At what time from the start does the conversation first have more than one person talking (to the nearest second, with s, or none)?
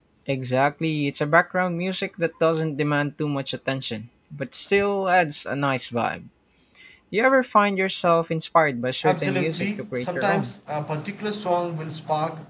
9 s